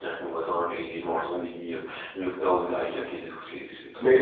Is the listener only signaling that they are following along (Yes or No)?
No